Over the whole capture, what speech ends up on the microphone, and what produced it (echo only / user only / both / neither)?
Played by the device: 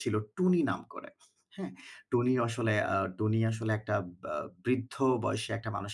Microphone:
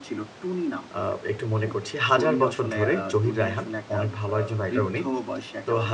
both